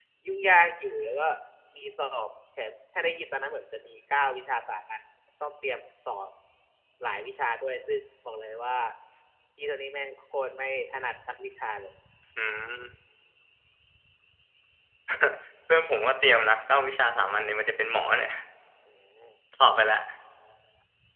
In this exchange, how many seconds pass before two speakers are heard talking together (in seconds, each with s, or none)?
none